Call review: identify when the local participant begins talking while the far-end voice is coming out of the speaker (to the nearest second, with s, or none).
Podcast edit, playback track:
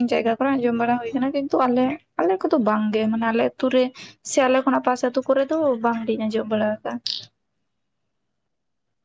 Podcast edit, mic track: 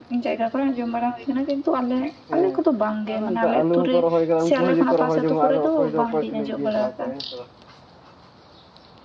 2 s